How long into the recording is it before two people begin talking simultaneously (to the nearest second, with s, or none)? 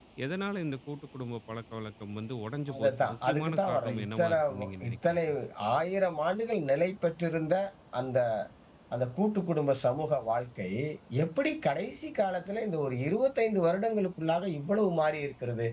3 s